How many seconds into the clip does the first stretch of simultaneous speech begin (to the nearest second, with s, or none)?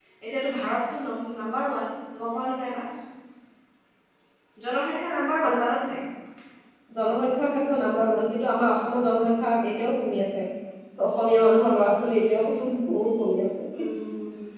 none